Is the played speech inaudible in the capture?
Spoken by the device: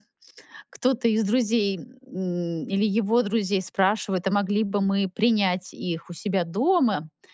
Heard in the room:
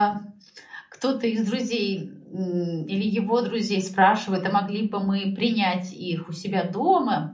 No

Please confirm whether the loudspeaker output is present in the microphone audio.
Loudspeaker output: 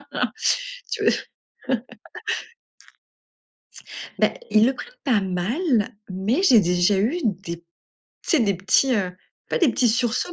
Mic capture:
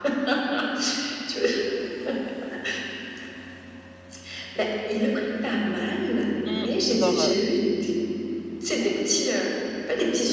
Yes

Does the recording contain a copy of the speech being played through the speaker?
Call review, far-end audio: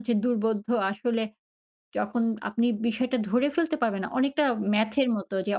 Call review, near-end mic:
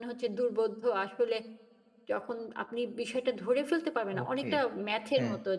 Yes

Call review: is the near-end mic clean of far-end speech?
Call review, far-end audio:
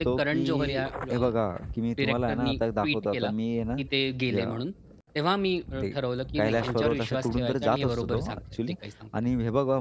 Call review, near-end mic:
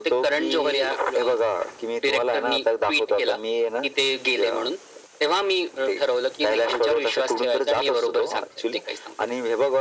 No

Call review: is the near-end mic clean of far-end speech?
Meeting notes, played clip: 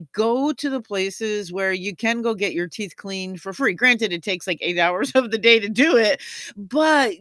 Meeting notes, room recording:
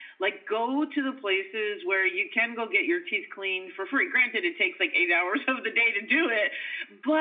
No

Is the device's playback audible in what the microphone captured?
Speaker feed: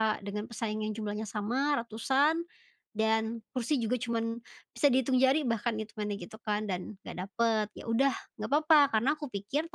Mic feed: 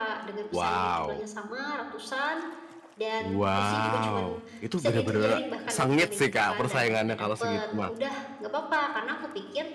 Yes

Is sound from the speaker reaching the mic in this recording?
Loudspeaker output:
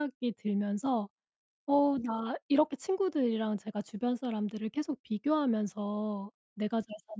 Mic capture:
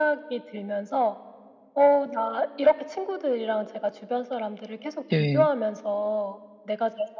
Yes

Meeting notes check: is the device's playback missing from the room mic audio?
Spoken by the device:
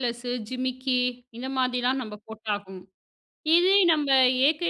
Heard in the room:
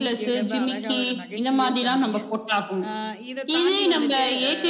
No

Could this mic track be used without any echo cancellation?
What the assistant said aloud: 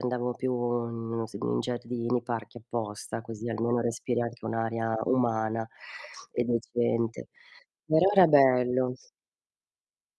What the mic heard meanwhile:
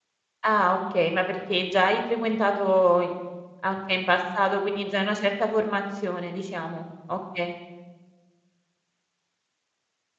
Yes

